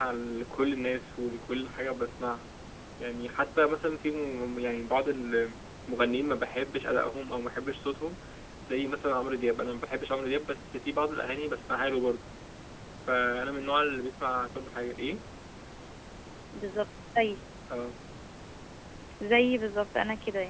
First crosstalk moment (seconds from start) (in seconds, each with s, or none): none